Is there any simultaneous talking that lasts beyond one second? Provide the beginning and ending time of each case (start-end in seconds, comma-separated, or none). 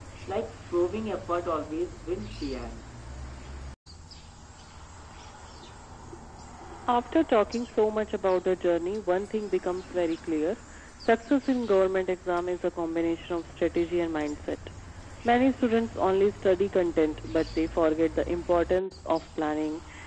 none